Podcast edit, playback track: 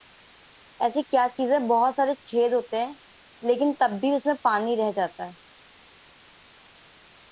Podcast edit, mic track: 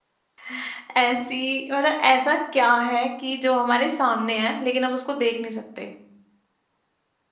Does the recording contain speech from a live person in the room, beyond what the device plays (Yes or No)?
Yes